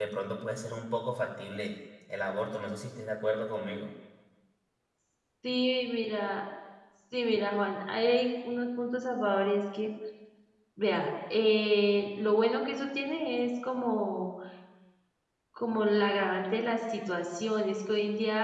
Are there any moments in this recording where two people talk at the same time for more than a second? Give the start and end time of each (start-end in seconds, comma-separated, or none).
none